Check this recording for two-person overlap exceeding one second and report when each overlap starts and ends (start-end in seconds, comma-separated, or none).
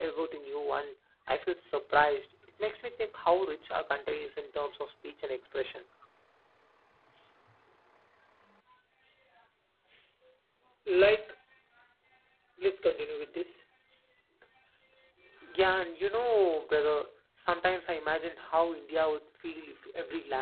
none